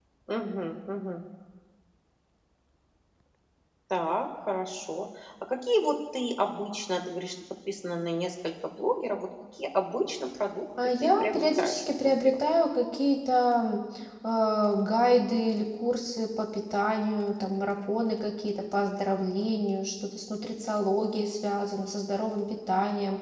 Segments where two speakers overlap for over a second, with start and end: 11.0-12.4

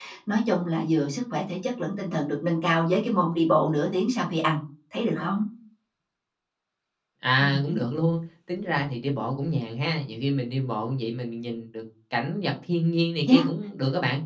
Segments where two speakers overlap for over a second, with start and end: none

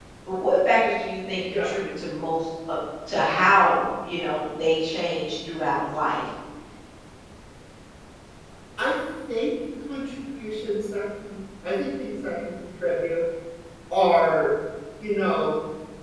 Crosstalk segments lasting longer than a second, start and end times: none

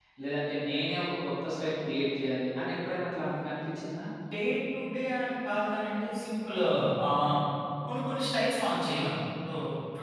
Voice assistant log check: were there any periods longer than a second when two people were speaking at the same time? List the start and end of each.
none

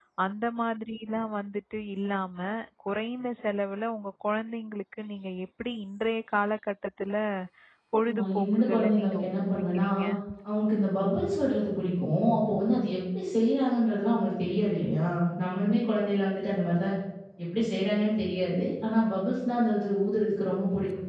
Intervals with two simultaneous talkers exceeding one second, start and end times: 8.1-9.8

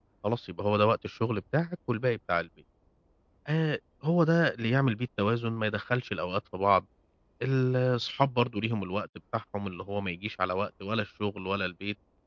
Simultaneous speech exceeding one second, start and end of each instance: none

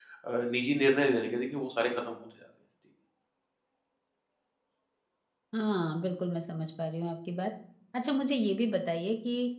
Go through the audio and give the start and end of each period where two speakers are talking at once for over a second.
none

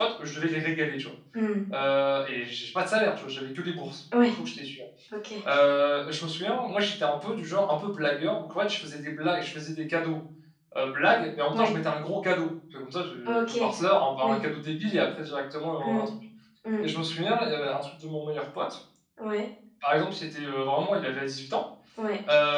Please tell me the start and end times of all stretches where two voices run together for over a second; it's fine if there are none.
none

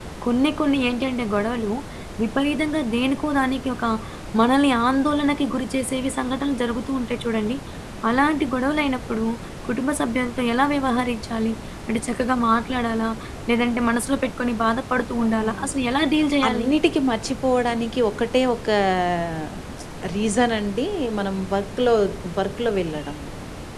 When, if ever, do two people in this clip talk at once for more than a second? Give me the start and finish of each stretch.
none

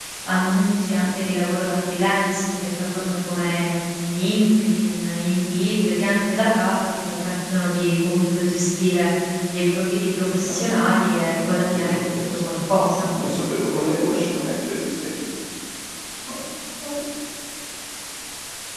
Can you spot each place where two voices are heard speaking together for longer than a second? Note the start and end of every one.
10.5-13.1

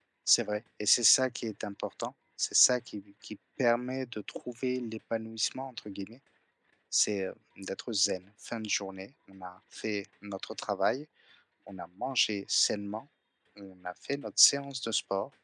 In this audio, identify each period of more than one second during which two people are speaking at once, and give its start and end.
none

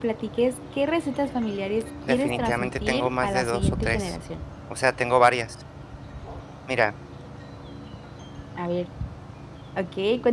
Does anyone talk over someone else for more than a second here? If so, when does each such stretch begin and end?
2.1-4.2

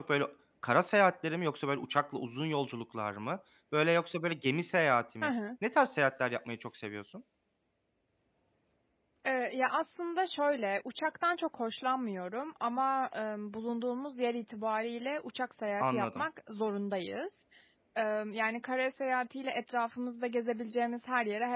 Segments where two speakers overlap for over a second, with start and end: none

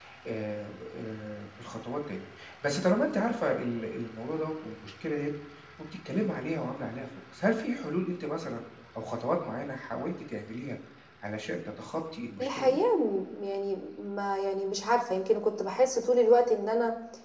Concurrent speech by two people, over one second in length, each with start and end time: none

